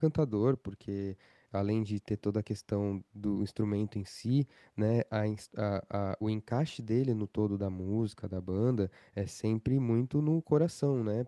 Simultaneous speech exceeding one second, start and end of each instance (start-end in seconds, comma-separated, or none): none